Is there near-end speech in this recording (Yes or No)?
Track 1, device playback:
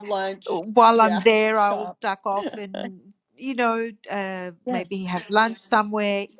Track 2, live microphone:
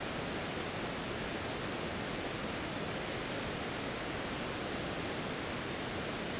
No